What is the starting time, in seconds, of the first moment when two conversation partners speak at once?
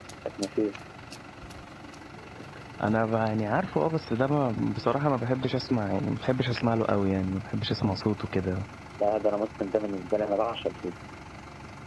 none

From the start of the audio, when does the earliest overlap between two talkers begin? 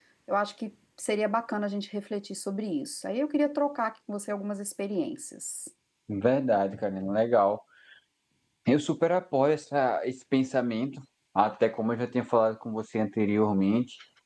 none

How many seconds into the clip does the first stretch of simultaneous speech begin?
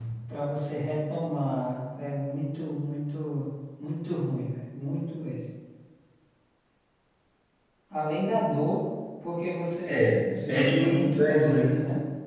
9.9 s

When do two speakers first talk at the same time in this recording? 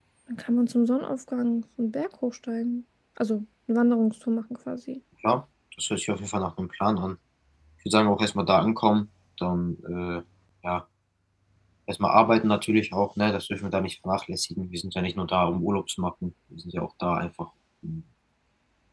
none

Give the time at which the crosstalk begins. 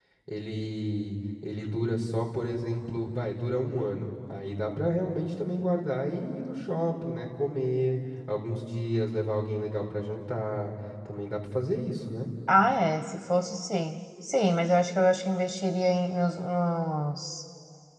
none

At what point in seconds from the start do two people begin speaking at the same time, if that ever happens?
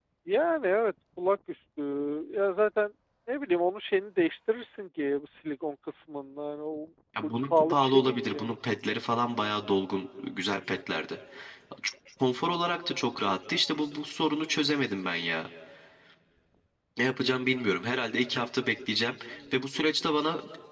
7.2 s

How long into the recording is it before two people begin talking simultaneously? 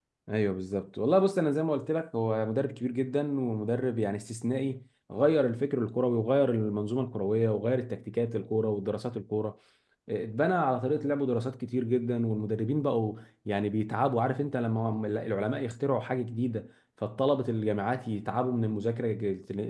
none

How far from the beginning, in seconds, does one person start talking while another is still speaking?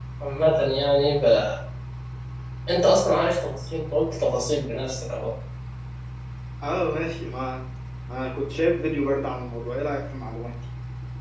none

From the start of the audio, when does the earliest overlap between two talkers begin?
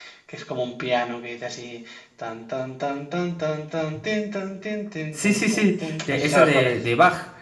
5.1 s

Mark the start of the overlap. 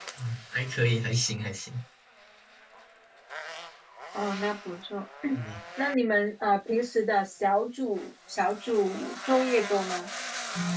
none

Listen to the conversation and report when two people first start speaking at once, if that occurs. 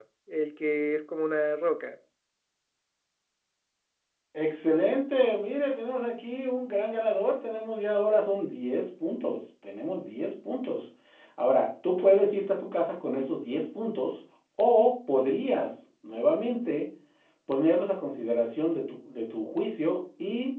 none

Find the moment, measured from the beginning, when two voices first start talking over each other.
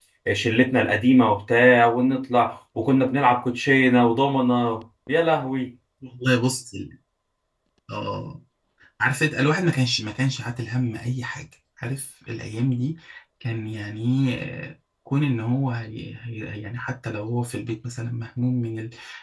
none

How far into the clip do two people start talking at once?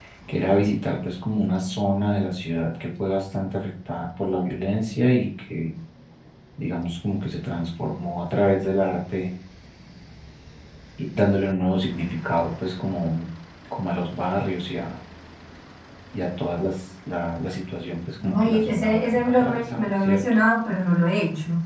18.2 s

